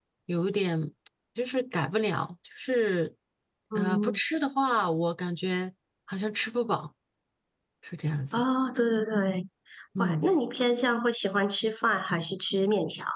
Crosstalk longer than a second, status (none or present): none